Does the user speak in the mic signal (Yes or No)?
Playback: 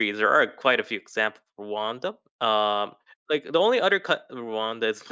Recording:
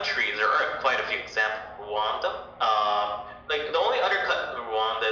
No